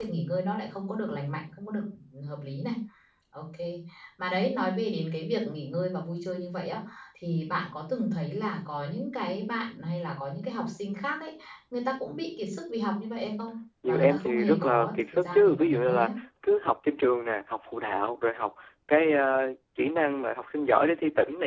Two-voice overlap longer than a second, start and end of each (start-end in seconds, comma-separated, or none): 13.9-16.1